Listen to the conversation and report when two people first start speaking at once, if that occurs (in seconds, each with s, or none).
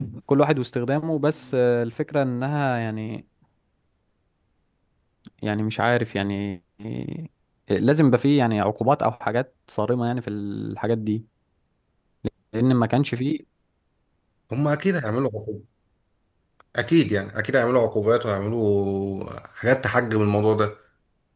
none